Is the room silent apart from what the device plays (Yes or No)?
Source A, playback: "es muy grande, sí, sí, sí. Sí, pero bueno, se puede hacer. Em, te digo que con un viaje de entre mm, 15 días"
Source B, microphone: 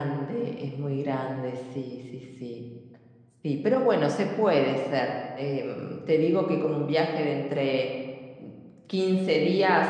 Yes